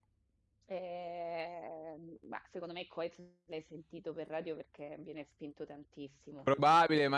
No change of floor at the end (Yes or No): No